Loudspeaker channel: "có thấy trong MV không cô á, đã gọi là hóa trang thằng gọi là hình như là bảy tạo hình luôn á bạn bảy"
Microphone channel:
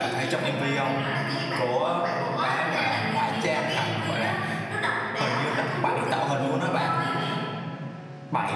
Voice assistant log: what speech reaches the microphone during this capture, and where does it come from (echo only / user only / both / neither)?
both